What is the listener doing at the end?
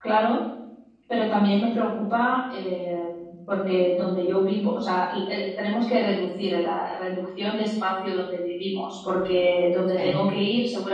listening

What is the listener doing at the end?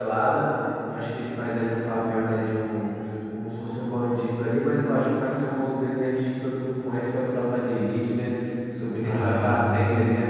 listening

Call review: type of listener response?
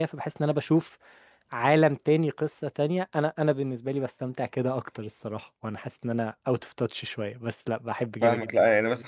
taking over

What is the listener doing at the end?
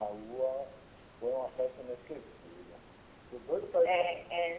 taking over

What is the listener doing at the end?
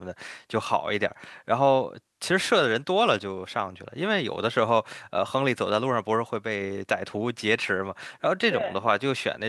listening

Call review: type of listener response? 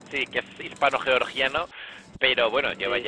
listening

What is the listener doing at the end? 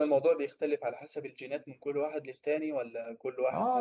taking over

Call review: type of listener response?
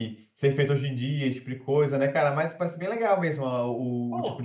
taking over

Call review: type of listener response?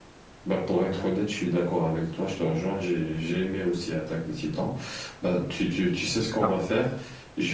listening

